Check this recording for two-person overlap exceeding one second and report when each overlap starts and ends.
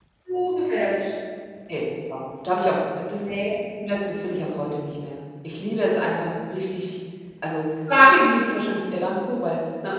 none

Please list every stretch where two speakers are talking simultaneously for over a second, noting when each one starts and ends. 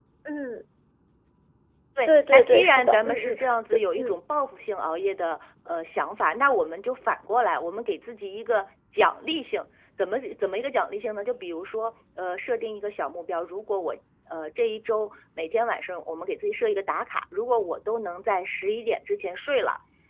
2.0-4.1

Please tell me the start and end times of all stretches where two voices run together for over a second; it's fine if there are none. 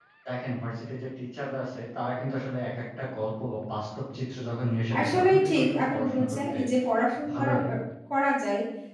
5.0-6.5

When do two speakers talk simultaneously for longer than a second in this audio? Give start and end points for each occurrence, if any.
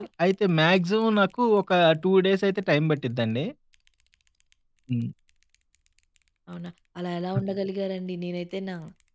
none

